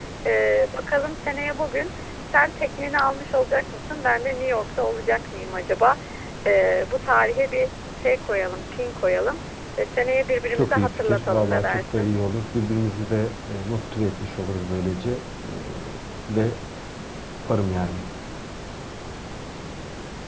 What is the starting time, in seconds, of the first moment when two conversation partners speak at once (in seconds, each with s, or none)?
10.5 s